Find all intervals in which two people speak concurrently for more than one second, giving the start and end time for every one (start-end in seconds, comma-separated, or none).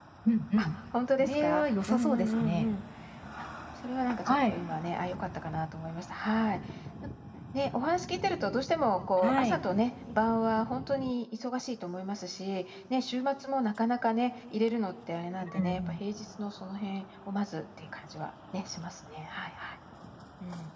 1.2-2.7